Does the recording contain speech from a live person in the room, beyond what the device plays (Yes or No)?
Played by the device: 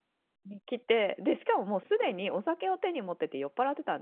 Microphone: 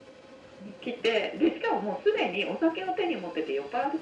No